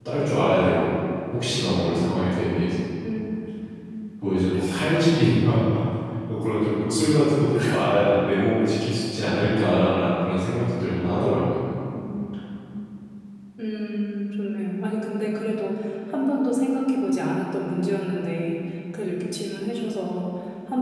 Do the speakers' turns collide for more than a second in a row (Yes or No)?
No